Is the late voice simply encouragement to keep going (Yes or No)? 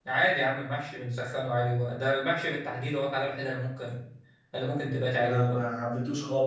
No